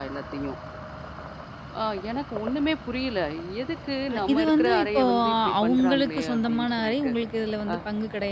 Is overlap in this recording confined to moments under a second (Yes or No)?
No